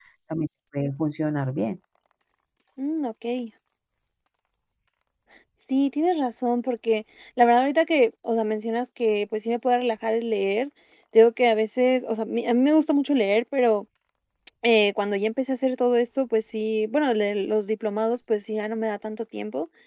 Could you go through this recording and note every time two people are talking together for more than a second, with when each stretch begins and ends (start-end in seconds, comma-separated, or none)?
none